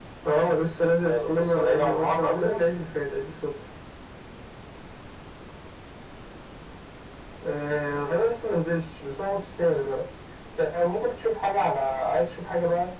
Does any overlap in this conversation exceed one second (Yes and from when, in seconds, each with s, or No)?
Yes, from 1.0 s